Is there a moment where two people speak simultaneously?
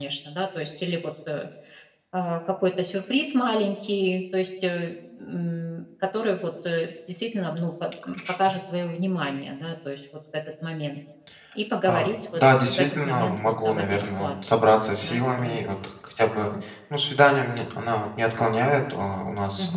Yes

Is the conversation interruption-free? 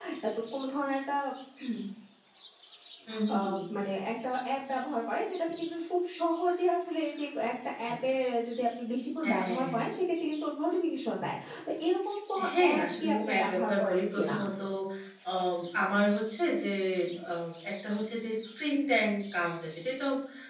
No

